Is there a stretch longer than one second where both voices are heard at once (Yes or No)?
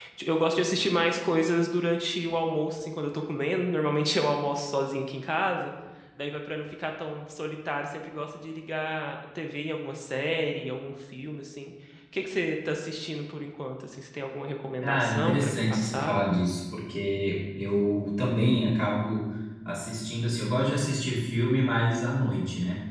Yes